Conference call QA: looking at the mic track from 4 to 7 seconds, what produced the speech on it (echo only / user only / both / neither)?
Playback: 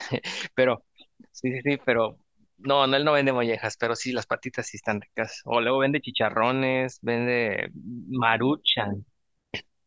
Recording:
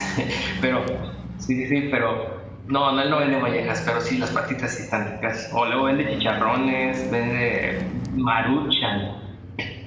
echo only